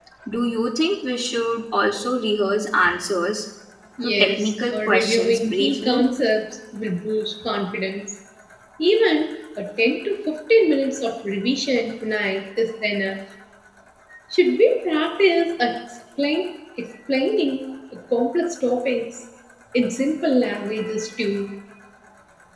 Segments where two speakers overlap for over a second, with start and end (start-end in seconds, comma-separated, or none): 4.0-6.0